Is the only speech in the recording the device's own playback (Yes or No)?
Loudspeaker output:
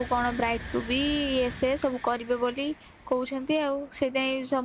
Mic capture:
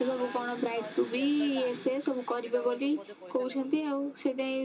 No